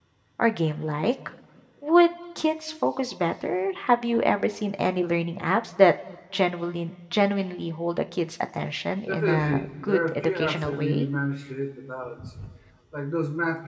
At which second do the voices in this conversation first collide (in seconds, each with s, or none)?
9.1 s